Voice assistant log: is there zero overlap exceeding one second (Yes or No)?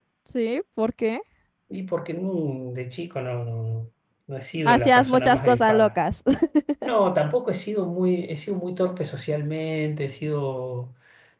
No